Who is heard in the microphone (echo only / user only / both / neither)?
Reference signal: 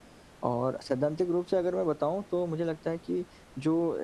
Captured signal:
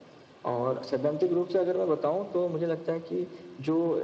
echo only